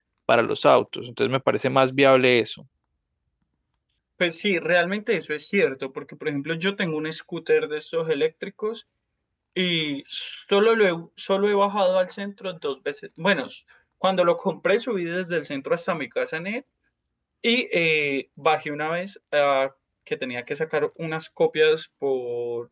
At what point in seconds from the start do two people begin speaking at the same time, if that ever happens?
none

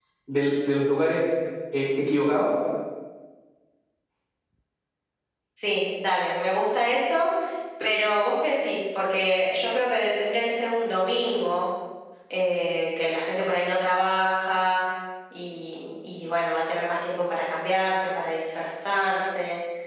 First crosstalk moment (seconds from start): none

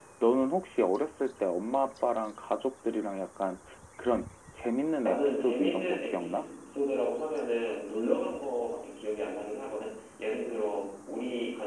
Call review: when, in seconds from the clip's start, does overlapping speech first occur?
5.0 s

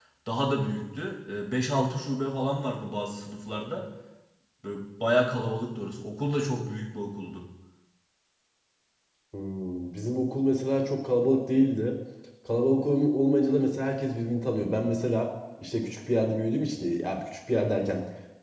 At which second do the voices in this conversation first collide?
none

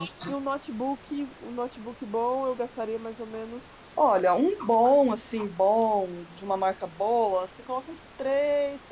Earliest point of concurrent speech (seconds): none

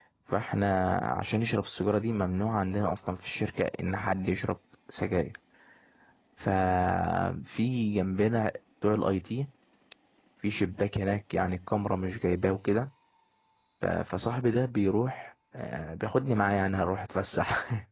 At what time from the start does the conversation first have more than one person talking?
none

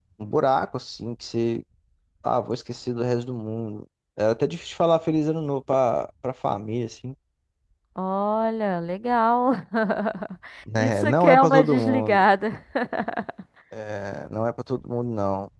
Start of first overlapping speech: 10.8 s

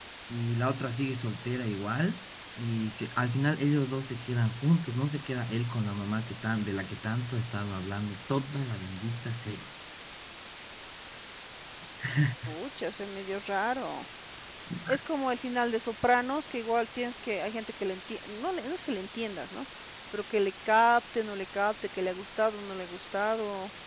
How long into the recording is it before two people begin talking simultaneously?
none

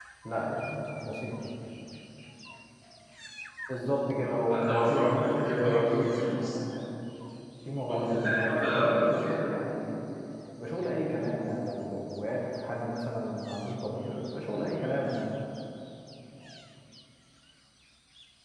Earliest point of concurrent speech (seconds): 4.2 s

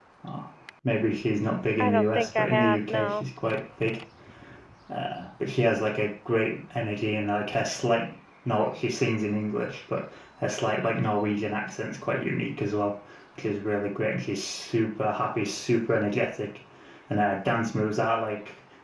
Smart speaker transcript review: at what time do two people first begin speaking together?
1.8 s

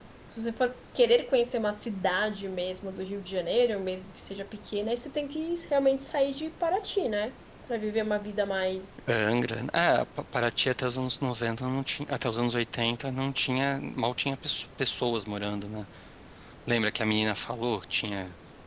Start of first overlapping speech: none

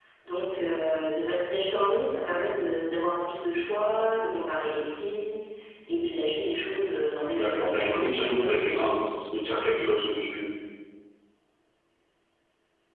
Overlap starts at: 7.4 s

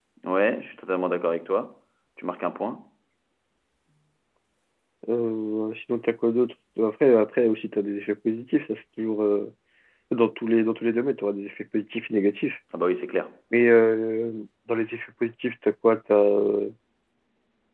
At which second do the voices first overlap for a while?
none

